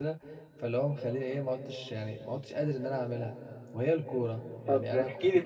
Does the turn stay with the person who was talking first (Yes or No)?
No